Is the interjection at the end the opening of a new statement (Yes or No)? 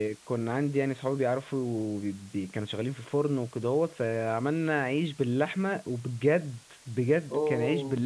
No